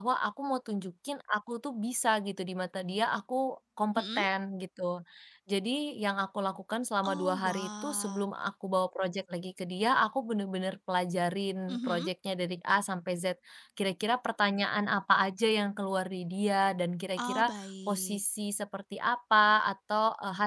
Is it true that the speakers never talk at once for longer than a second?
No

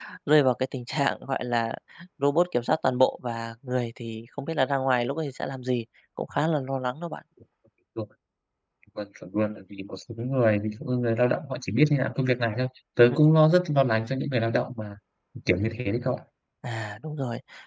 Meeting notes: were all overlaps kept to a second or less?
Yes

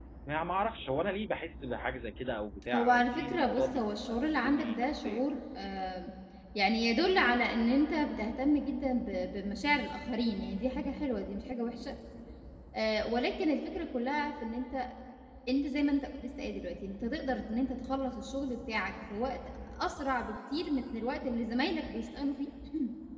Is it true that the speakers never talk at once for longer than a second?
No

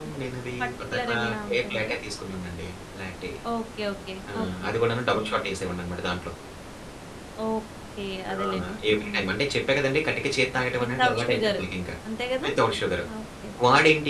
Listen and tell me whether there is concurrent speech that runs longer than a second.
Yes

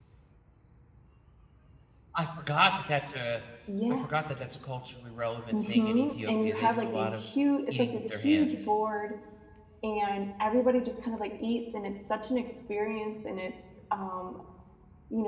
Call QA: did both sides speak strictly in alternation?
No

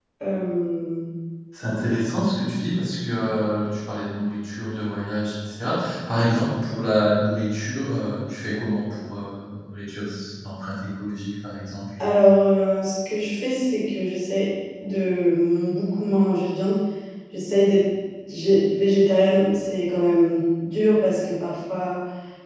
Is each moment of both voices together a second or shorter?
Yes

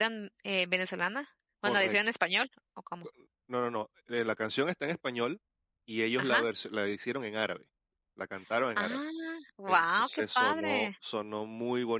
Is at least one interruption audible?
Yes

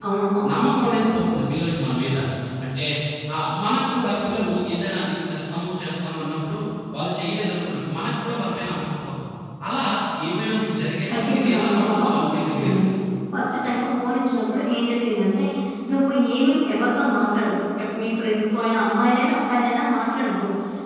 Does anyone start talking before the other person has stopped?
Yes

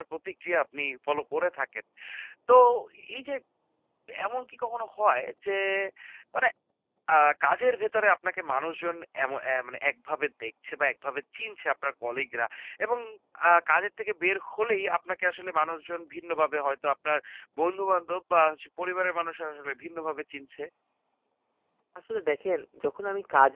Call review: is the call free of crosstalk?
Yes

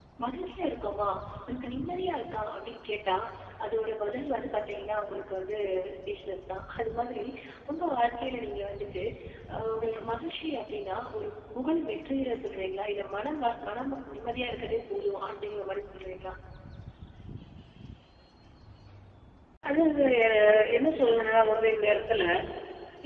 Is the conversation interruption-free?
Yes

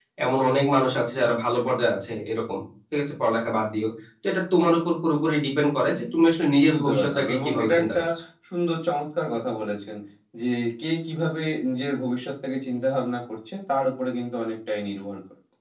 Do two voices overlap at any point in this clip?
Yes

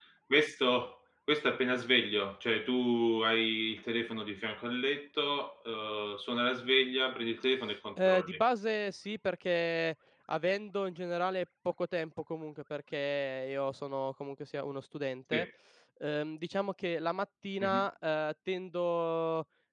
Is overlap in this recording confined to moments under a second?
Yes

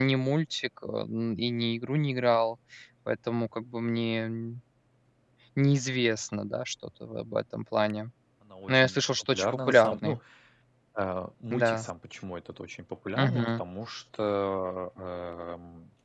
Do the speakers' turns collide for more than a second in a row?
Yes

